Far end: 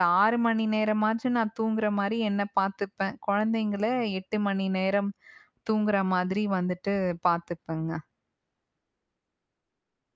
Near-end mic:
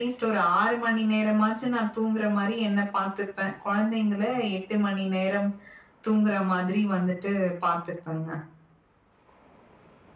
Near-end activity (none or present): none